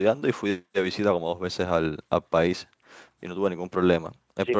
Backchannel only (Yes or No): No